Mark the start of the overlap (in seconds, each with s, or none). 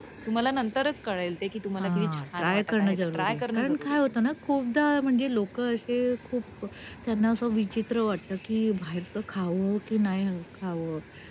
1.8 s